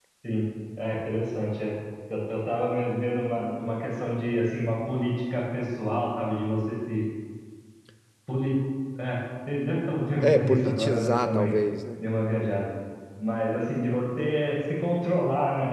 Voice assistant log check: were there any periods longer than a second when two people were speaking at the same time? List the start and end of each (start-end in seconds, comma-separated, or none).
10.2-11.6